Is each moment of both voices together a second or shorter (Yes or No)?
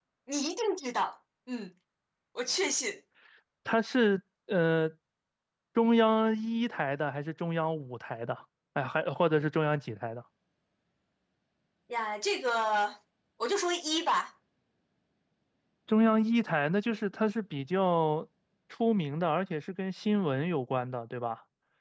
Yes